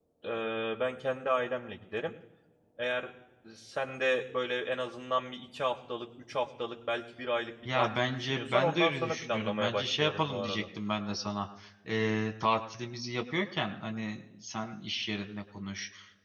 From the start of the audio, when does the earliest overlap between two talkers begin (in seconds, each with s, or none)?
7.7 s